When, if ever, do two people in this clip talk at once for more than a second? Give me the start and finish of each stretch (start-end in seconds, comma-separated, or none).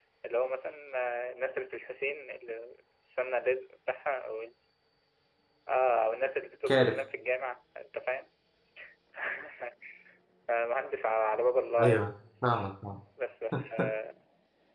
none